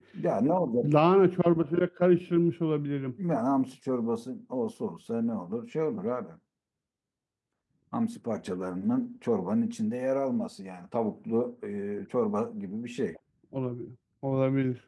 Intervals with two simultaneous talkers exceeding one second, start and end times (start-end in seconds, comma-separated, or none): none